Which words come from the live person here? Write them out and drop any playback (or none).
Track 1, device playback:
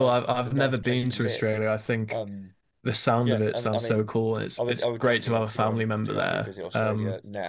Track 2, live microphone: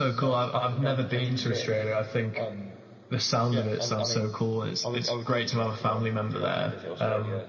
none